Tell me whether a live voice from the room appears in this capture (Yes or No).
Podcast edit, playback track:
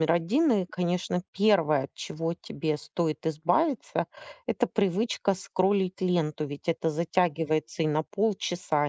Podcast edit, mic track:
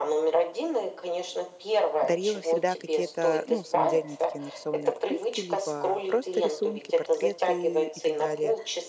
Yes